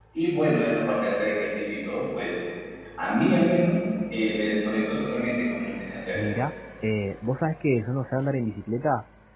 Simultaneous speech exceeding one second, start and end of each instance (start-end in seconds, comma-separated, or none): none